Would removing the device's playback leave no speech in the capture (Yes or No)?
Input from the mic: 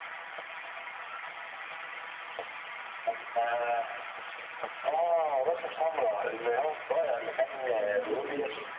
No